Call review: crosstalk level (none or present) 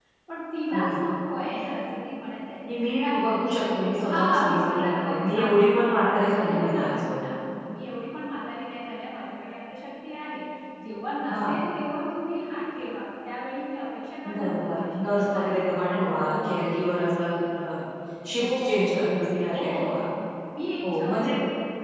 present